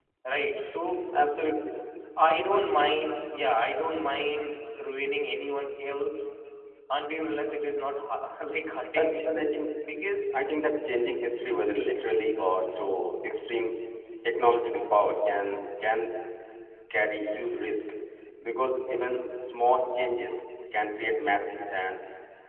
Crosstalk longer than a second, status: none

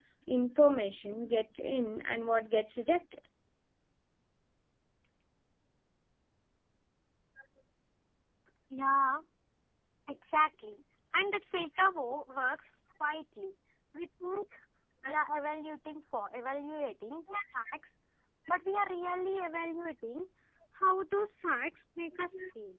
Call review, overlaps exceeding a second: none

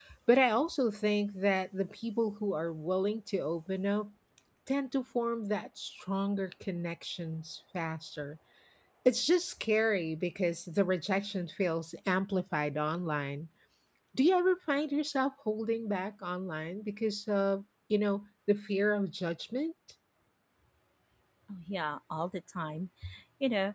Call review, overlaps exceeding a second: none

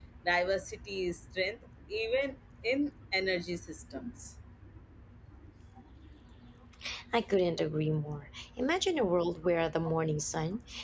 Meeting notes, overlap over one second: none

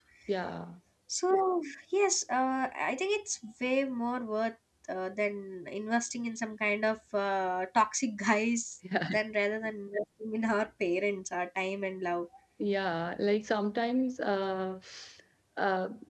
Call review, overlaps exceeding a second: none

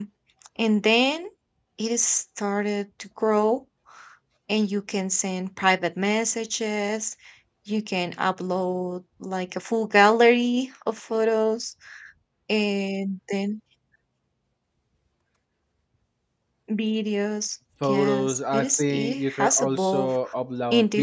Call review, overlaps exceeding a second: present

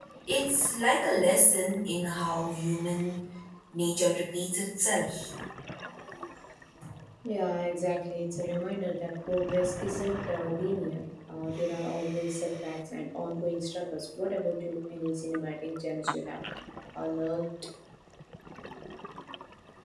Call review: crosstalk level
none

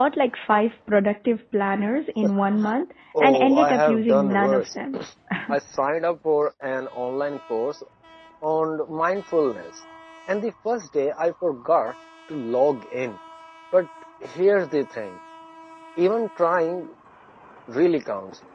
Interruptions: present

